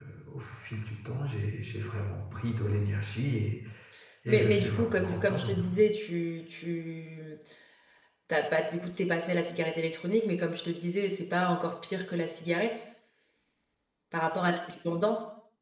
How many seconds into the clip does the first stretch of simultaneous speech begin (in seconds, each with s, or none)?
4.3 s